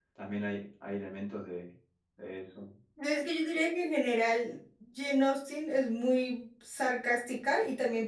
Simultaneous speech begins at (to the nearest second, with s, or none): none